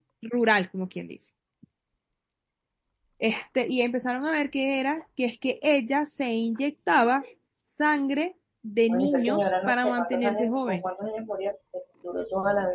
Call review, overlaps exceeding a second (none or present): present